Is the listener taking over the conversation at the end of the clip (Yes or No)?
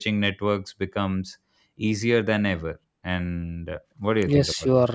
Yes